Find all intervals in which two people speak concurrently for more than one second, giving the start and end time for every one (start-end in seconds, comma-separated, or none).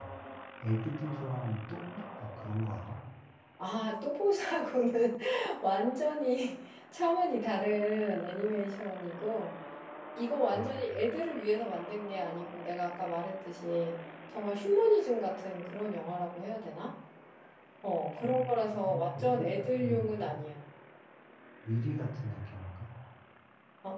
18.7-20.3